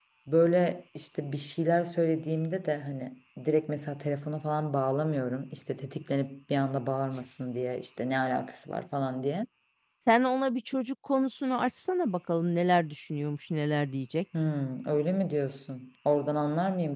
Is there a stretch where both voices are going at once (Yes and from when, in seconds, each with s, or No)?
No